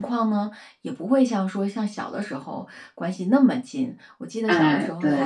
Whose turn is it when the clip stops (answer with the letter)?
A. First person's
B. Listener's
A